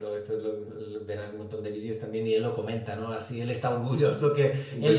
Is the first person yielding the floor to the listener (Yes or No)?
No